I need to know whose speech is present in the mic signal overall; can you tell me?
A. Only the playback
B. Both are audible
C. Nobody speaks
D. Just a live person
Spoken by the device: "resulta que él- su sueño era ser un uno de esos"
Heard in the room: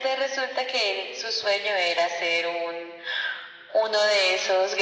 A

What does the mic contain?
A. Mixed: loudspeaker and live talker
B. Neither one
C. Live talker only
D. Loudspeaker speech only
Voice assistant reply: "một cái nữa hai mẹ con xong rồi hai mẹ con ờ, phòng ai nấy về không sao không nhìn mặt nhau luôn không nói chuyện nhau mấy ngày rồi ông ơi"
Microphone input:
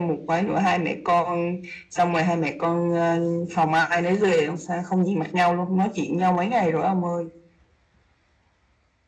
D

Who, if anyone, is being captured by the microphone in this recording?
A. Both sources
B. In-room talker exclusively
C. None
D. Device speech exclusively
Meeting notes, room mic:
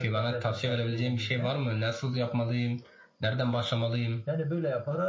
D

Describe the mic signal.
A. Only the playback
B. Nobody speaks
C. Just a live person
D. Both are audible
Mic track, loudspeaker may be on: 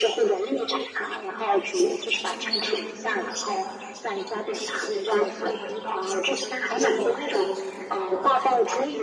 D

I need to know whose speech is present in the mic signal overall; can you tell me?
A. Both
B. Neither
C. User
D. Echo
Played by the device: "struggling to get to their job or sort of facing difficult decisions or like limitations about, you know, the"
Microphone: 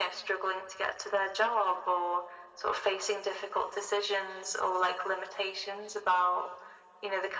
D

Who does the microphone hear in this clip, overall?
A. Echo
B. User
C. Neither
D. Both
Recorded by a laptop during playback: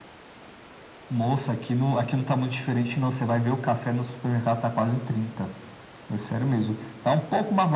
A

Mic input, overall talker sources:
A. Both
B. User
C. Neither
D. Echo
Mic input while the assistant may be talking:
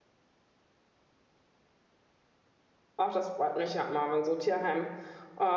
B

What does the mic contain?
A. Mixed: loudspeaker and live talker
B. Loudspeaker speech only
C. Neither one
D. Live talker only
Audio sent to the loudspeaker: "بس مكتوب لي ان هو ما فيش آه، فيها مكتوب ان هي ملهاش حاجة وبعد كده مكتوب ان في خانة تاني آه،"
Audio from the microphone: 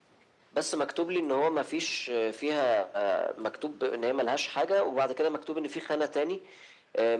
B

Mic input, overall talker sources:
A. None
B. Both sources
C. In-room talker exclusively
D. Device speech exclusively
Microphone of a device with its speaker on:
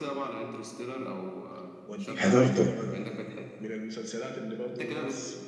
B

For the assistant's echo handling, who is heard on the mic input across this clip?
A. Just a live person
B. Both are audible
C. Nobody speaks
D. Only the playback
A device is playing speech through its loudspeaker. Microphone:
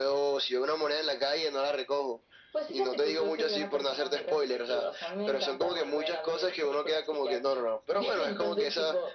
D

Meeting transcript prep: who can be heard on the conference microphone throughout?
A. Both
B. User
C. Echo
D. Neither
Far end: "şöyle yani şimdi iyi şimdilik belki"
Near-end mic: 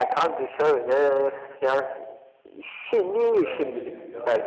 A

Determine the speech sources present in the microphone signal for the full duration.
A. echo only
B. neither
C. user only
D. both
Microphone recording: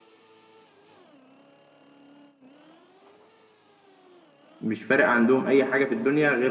C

